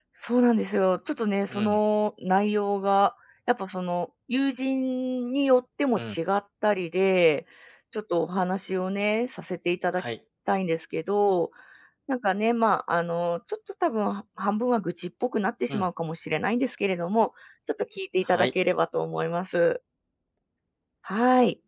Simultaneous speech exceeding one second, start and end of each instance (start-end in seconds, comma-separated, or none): none